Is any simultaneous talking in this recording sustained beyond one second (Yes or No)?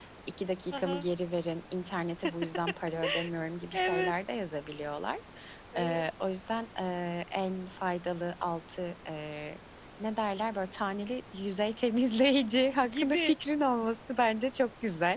No